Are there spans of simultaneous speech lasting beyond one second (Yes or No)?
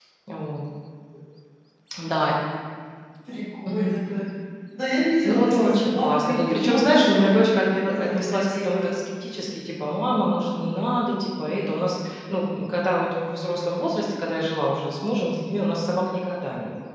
Yes